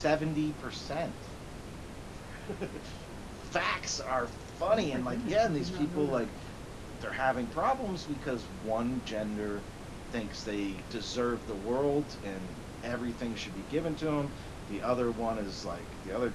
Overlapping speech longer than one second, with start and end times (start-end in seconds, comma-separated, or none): 4.7-6.3